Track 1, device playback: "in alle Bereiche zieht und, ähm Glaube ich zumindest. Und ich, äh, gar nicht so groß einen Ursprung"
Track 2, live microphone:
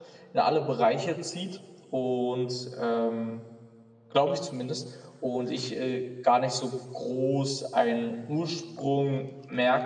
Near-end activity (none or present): none